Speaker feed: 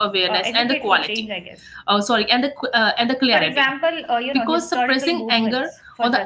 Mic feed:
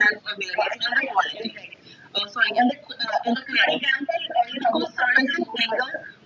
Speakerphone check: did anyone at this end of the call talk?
No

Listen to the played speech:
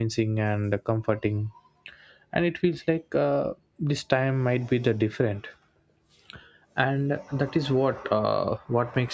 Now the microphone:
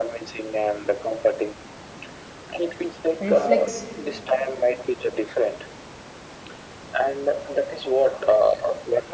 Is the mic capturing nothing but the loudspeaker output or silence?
No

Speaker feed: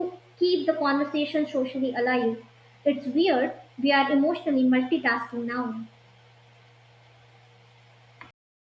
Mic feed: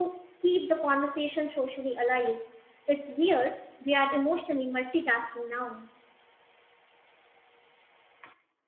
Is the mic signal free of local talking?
Yes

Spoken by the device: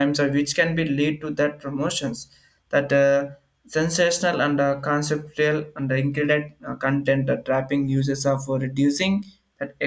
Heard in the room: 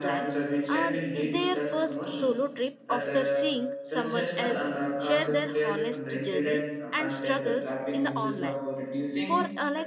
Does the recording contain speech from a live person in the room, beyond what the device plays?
Yes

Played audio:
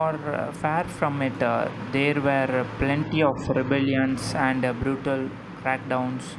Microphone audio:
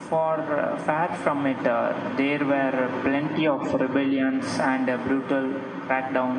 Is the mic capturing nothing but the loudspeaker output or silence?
No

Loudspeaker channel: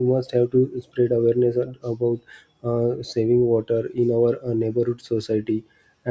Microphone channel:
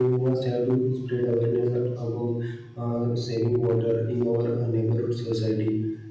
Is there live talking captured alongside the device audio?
No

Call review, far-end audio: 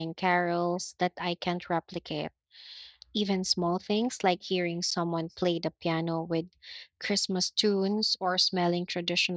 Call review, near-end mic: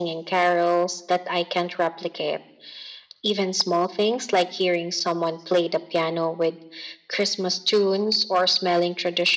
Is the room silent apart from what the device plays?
Yes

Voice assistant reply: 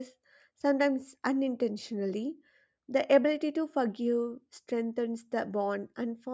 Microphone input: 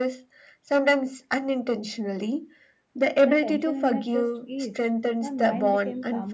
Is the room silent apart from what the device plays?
No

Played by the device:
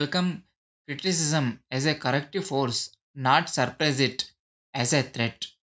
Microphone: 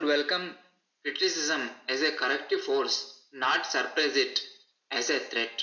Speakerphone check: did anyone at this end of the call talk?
No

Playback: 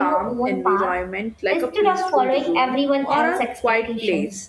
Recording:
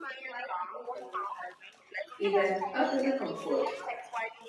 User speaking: Yes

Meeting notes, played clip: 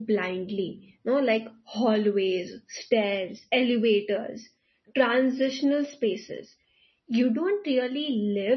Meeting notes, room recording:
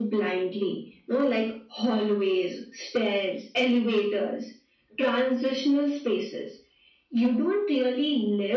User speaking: No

